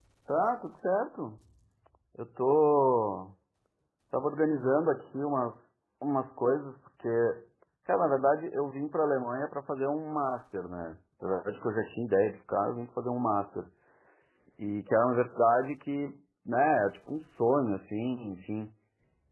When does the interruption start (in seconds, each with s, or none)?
none